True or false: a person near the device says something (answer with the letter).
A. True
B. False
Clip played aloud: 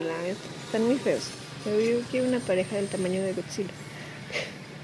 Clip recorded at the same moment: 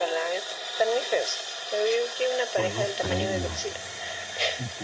A